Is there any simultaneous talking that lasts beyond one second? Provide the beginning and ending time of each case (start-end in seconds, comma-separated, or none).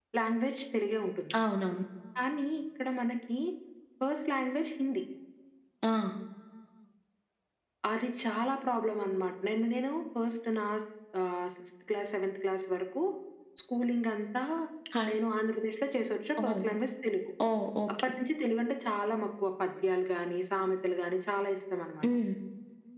none